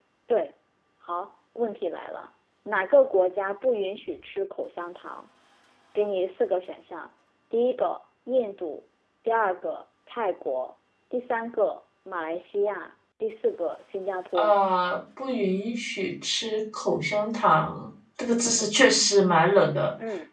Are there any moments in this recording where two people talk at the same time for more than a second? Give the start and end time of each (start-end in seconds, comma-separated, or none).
none